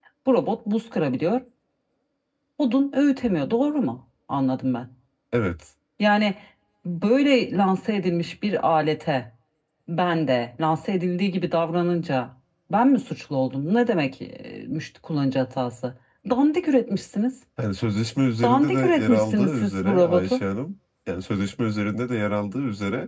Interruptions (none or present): present